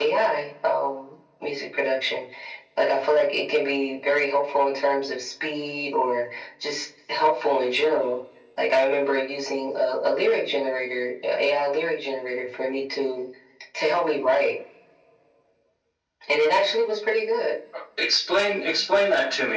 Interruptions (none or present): none